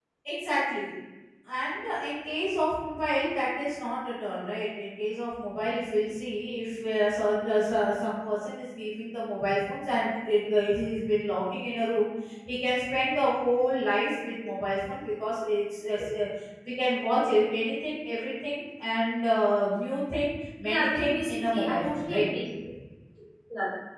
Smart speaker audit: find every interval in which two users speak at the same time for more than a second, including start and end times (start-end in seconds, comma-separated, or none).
20.6-22.3